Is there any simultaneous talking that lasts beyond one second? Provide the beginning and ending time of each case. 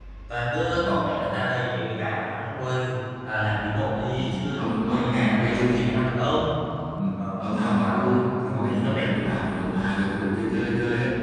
4.2-5.9, 7.4-9.1

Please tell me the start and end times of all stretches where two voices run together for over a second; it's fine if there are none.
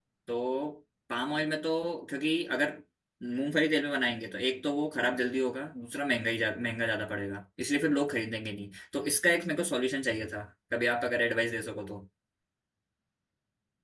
none

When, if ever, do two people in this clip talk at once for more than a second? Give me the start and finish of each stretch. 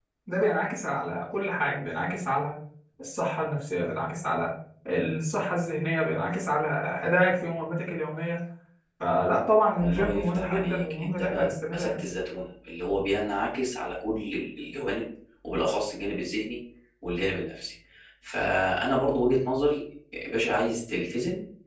9.8-12.0

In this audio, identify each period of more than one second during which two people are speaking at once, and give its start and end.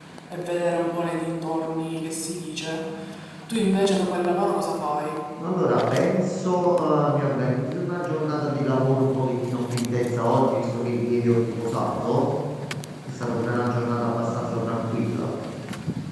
none

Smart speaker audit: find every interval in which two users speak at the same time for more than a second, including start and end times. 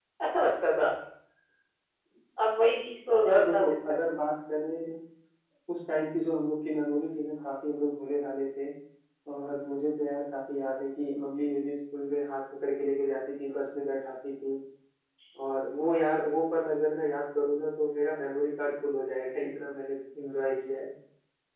none

